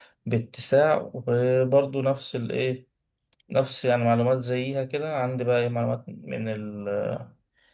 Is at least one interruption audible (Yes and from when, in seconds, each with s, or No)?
No